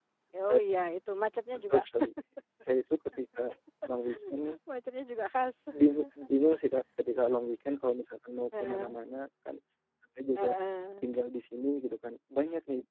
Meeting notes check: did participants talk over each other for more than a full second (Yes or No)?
No